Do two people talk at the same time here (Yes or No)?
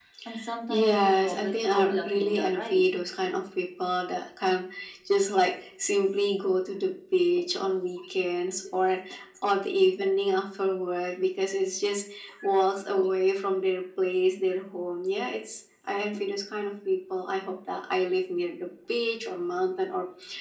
Yes